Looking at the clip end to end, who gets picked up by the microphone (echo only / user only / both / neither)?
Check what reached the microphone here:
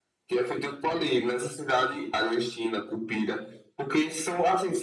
echo only